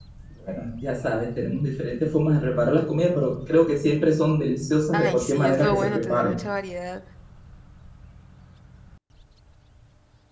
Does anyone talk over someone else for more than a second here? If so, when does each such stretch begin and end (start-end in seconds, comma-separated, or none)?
4.9-6.4